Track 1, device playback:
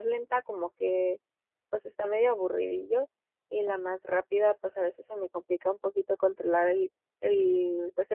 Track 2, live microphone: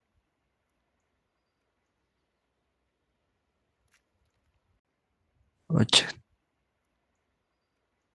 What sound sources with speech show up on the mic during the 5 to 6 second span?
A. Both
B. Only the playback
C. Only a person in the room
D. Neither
C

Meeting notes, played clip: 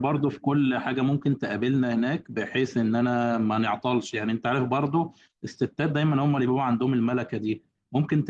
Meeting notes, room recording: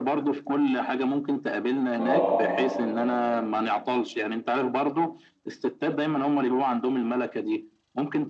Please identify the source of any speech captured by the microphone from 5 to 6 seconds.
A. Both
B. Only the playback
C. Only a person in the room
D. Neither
B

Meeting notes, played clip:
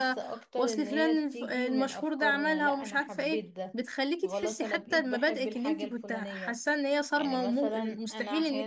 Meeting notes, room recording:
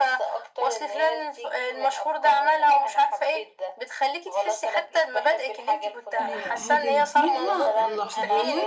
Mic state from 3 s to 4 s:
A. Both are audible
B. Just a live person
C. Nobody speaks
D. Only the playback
D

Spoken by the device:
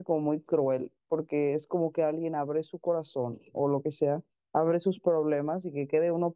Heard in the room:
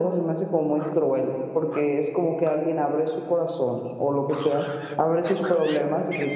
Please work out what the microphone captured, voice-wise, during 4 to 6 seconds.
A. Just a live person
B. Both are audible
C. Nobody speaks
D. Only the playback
D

